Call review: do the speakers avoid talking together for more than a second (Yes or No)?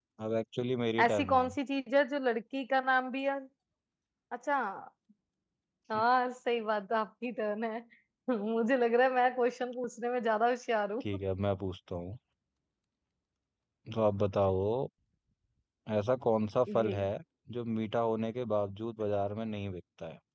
Yes